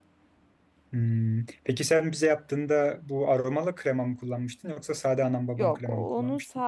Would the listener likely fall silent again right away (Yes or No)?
No